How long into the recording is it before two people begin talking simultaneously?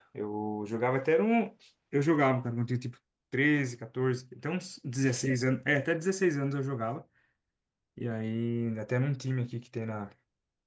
none

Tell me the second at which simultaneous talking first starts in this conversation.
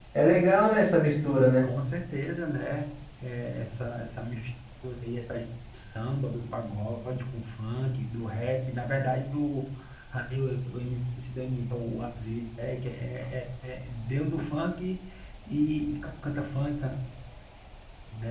none

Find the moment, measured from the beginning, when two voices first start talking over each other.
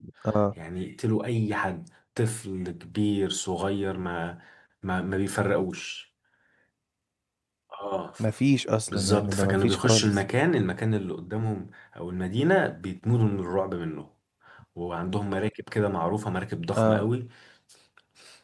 8.9 s

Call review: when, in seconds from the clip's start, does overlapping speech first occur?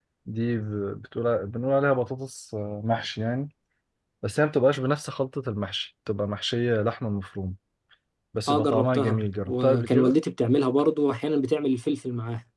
8.5 s

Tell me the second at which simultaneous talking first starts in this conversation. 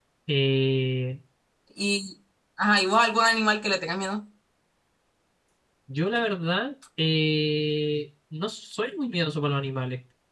none

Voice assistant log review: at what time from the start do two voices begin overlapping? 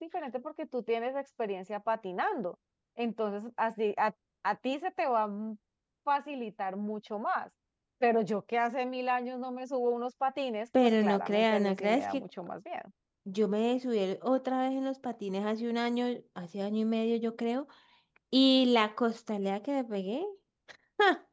10.7 s

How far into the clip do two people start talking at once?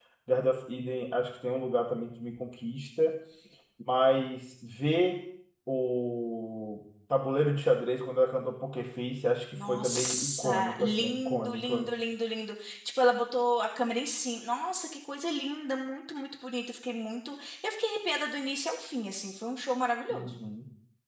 9.6 s

